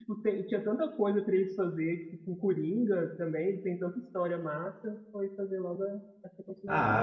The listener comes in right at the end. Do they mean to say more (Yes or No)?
Yes